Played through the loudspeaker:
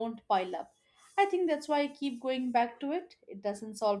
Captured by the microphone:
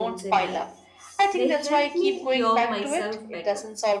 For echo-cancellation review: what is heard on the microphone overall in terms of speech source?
both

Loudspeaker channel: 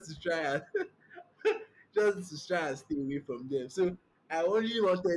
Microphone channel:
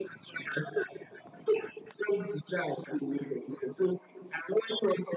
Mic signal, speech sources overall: echo only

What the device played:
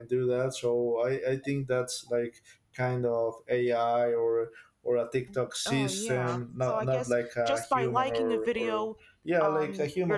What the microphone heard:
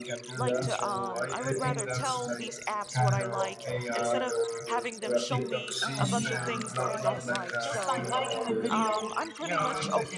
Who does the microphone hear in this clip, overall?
both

